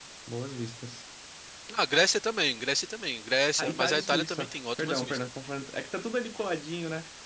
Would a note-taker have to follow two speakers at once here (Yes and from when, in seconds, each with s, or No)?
Yes, from 3.6 s